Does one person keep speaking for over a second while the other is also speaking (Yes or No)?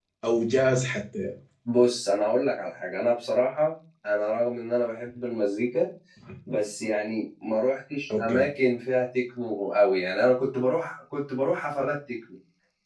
No